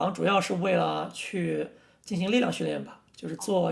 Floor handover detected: No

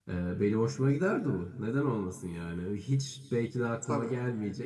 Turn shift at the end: No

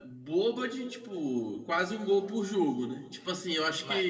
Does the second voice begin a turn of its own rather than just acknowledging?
Yes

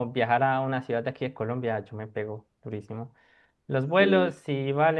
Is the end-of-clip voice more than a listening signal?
No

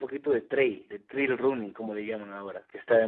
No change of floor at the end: No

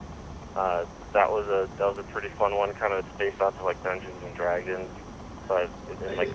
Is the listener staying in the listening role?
No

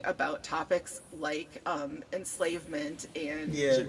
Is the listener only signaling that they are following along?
Yes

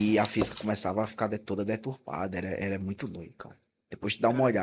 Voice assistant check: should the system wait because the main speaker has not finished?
No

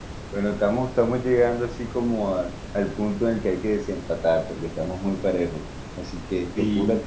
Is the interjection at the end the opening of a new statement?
No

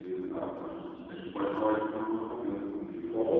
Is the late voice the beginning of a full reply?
Yes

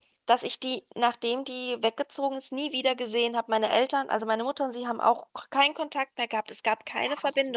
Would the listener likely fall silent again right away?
No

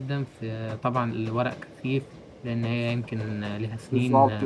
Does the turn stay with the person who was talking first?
No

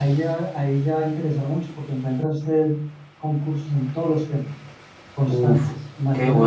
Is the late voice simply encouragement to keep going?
No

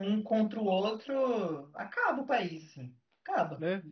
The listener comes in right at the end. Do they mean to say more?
Yes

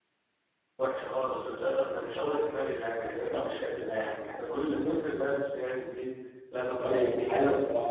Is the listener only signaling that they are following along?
No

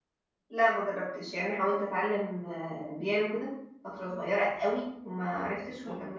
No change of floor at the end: Yes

